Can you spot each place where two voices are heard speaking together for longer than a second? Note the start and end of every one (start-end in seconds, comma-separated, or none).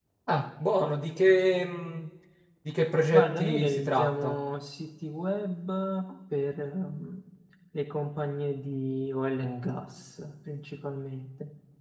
3.1-4.4